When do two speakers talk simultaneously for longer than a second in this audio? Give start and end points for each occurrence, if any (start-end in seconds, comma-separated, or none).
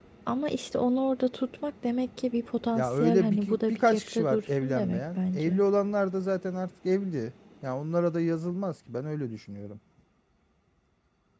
2.7-5.6